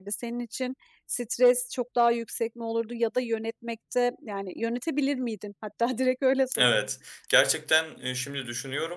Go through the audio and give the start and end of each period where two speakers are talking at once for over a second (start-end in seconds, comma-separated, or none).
none